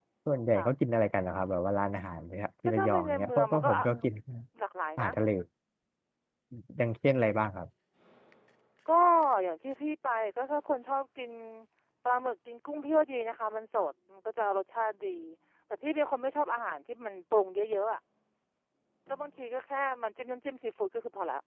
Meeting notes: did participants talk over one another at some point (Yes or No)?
Yes